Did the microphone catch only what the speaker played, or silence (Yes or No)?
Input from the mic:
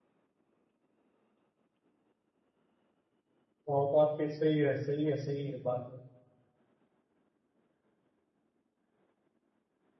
No